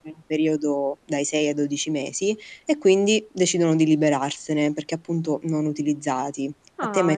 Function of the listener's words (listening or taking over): taking over